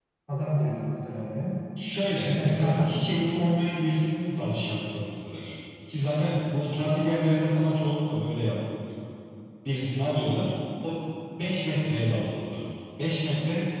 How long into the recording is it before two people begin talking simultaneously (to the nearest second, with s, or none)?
2 s